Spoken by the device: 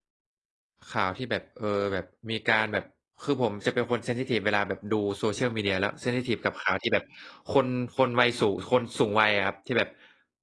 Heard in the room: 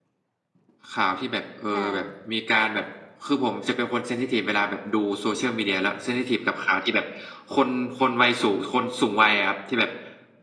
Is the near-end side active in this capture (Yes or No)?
Yes